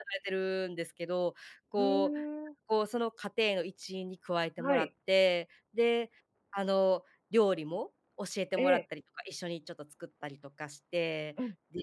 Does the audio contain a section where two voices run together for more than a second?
No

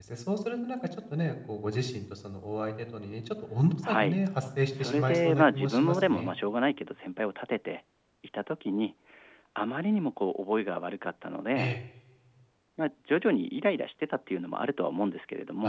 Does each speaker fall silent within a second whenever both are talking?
No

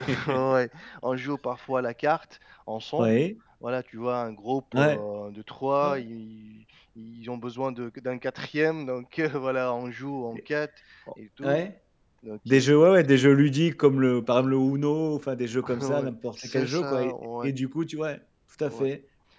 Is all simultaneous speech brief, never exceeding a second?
No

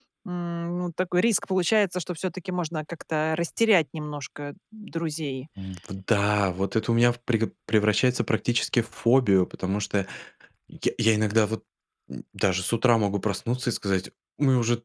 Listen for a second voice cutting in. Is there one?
No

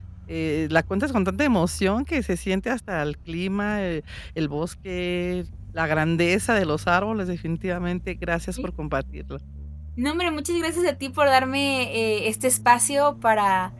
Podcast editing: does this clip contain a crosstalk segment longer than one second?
No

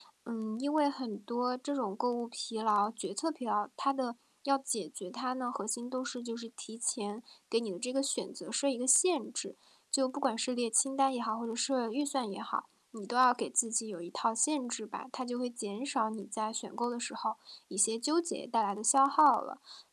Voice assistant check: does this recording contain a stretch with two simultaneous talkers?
No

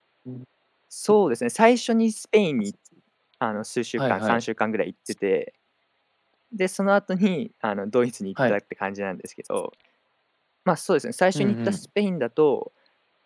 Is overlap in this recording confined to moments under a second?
Yes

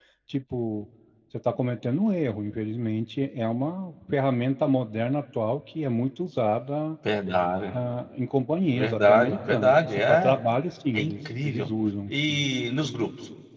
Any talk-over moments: Yes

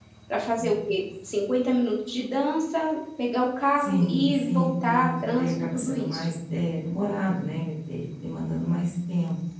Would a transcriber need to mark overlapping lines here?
Yes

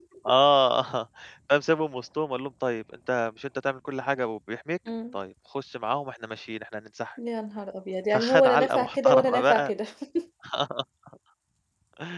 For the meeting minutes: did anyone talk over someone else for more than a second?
Yes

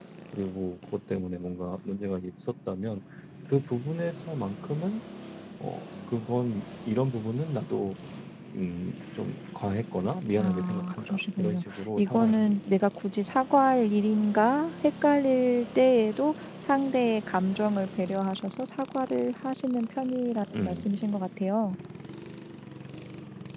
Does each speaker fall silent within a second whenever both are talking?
No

